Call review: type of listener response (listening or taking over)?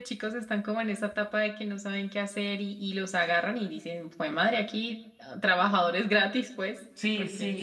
taking over